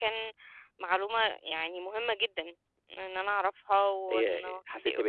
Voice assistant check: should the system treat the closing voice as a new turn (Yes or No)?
Yes